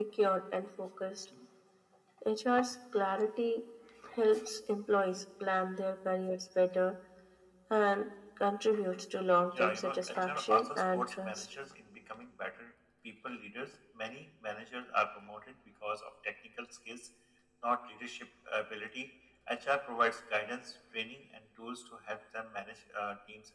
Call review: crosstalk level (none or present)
present